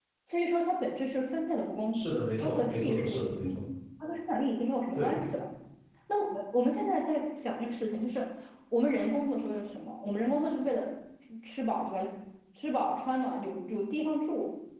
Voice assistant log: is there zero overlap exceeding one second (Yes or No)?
No